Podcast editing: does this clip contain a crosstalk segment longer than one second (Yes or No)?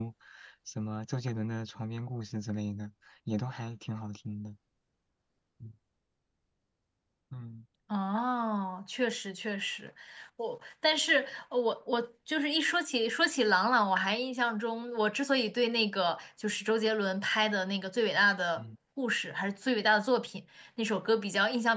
No